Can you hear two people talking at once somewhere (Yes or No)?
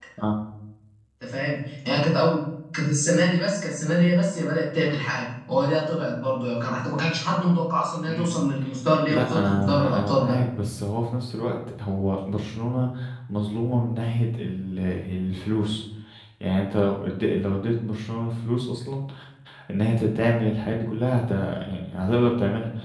Yes